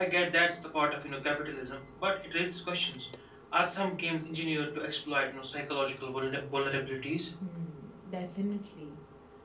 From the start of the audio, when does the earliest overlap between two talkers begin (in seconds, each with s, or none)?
none